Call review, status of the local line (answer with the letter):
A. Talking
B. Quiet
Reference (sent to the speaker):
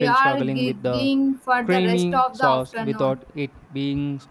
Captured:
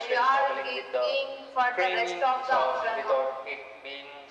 B